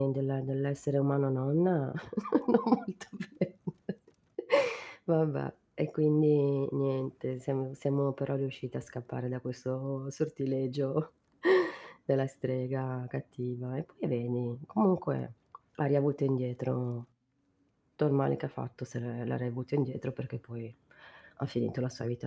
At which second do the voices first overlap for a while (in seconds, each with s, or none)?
none